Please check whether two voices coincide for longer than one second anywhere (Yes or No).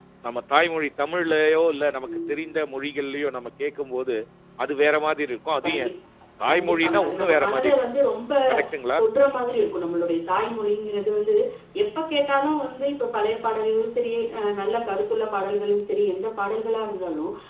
Yes